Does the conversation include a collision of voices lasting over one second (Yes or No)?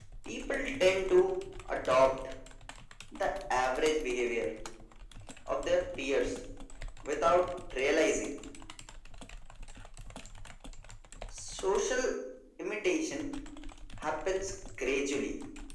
No